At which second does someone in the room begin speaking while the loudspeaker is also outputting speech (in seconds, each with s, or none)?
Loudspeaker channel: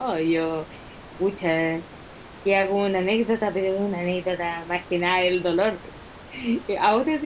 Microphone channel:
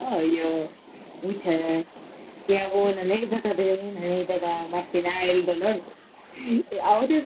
none